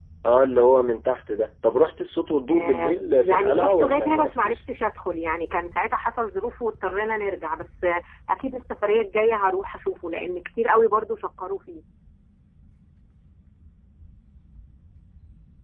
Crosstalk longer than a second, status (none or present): present